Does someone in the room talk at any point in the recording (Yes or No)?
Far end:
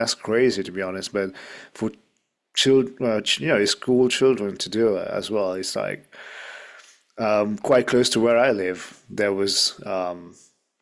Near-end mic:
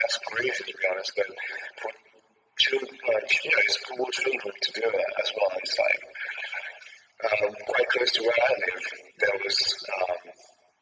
No